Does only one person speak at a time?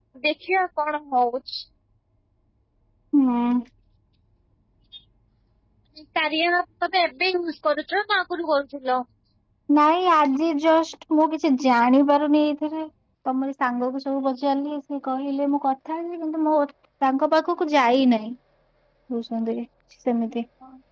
Yes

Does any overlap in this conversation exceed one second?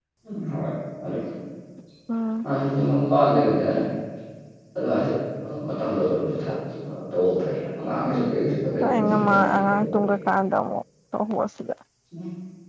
Yes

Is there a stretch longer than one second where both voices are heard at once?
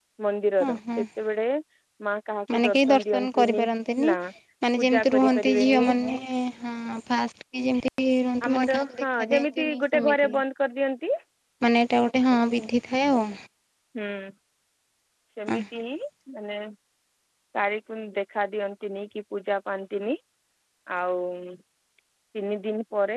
Yes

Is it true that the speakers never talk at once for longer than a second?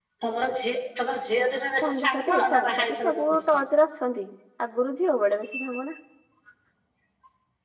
No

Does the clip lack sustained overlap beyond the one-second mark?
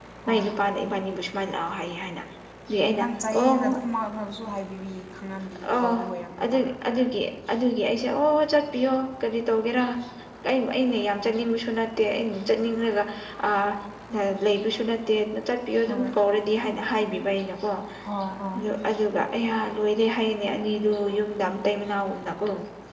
Yes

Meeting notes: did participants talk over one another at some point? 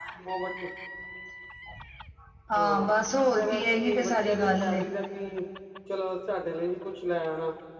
Yes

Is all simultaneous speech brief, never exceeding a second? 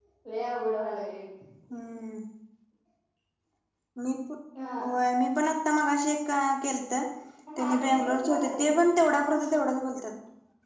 No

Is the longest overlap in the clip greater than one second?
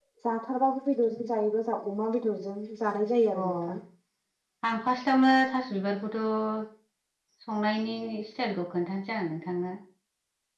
No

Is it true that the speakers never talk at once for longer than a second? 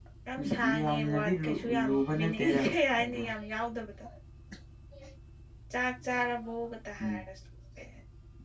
No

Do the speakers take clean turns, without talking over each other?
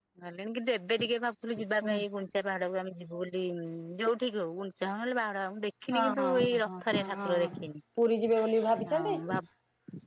No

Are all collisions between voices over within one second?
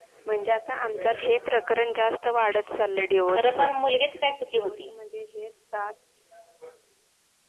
Yes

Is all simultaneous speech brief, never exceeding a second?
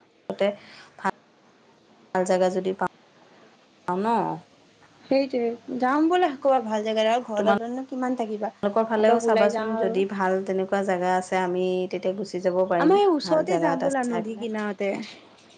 No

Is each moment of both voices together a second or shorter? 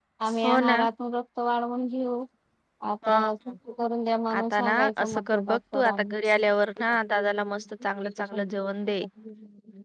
No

